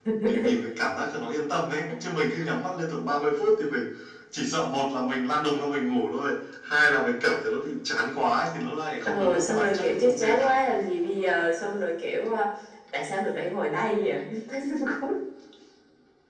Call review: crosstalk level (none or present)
present